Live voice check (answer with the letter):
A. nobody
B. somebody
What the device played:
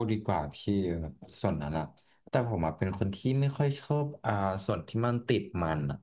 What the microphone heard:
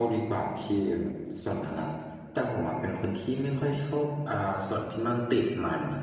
A